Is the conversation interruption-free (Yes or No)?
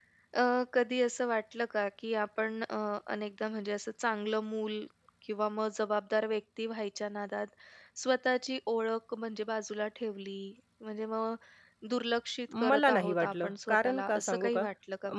No